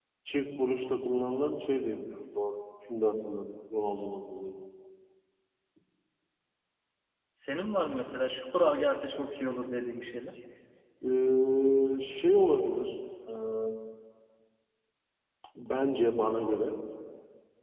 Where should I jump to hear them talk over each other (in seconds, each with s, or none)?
none